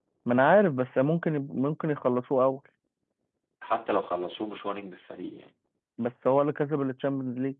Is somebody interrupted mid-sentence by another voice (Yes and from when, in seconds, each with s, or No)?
No